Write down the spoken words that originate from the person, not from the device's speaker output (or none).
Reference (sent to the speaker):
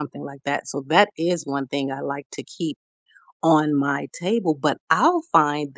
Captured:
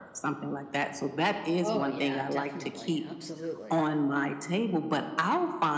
Oh, yeah, definitely, absolutely.